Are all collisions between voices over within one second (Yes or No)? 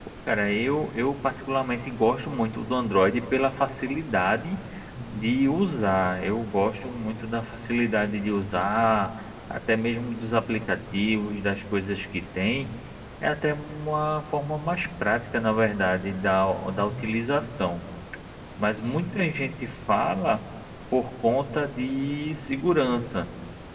Yes